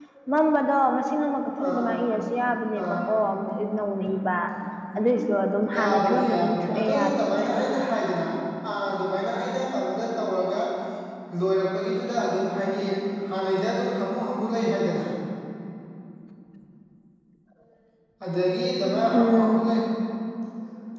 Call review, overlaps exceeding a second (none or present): present